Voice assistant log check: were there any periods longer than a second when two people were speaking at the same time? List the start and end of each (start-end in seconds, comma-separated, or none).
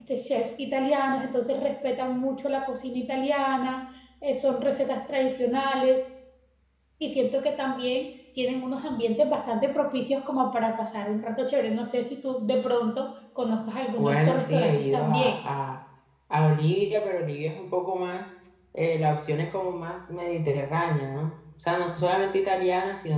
14.0-15.3